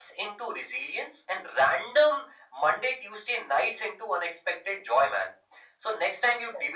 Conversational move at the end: listening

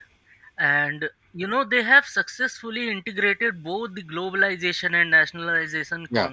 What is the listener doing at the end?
listening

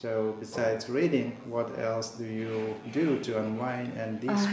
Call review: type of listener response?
taking over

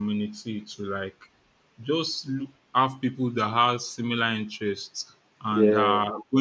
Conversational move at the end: listening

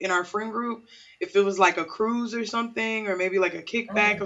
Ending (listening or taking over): listening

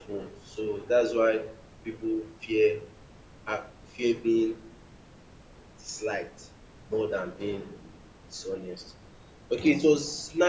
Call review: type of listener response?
listening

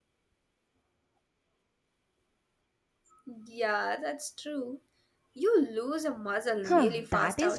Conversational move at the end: taking over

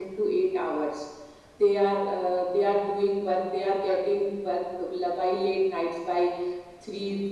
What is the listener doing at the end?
listening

